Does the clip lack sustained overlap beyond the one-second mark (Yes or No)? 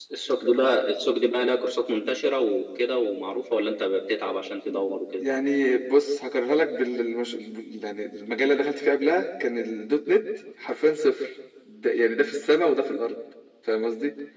Yes